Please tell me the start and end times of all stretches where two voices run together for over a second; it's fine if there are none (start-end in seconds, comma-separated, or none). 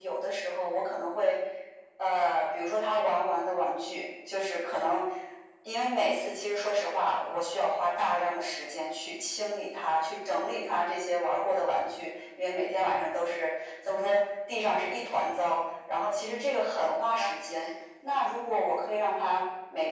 16.1-17.6